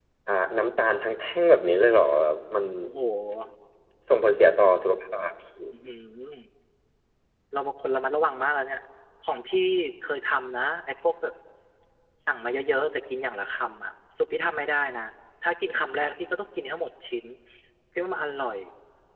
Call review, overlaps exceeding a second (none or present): none